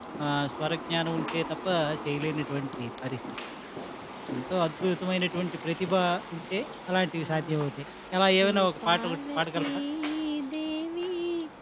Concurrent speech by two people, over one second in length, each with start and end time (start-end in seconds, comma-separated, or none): 8.3-9.7